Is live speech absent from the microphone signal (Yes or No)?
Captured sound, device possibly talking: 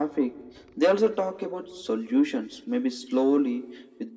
Yes